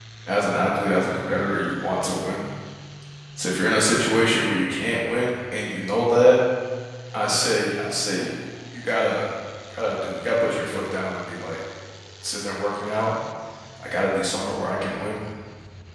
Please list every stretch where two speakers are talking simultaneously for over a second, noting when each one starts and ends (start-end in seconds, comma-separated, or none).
none